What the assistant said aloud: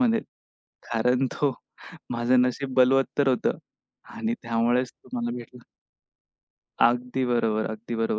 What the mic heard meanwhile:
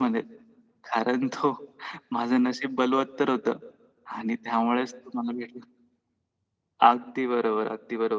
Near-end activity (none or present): none